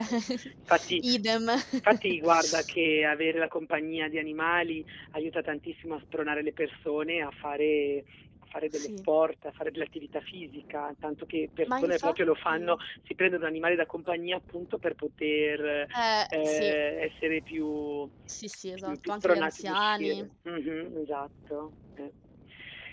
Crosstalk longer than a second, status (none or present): present